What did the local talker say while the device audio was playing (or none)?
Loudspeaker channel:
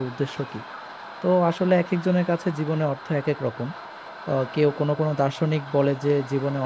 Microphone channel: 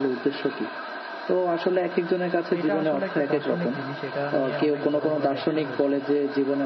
তো এটা আসলে একটা দার্শনিক জিনিস এটা নিয়ে অনেক বড় বড় ব্যাখ্যা রয়েছে